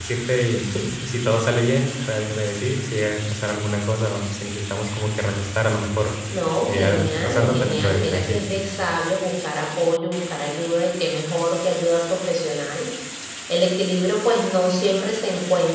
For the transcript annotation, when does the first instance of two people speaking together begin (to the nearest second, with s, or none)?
7 s